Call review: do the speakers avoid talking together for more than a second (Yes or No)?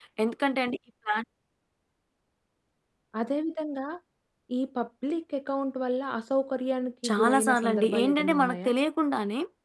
No